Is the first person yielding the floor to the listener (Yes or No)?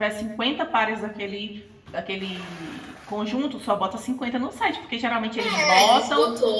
Yes